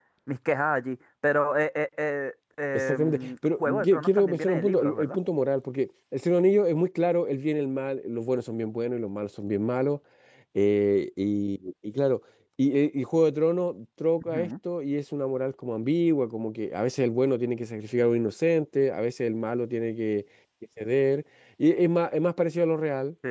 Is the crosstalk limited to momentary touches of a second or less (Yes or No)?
No